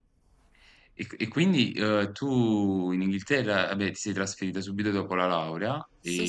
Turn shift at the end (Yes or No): Yes